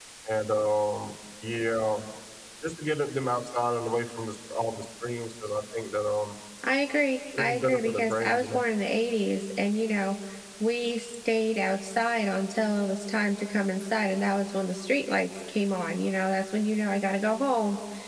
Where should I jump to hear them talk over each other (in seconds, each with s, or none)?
7.4 s